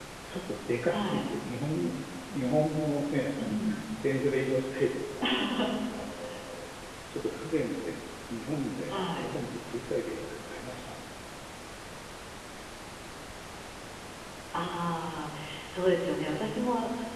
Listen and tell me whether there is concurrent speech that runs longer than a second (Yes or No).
No